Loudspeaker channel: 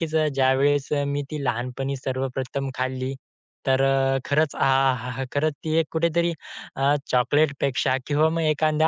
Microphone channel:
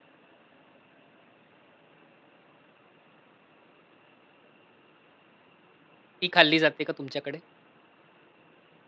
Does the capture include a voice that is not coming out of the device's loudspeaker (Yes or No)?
Yes